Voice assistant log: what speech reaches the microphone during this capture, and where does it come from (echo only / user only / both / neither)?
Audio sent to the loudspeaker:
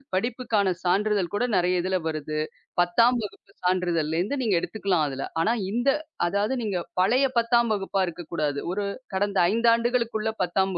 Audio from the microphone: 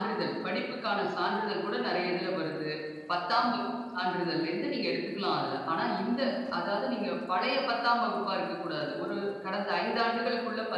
echo only